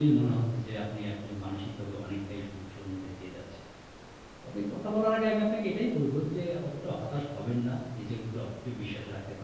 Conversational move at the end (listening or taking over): listening